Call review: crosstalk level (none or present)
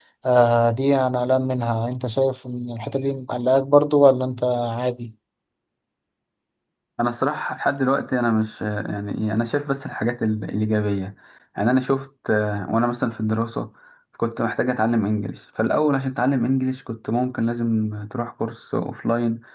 none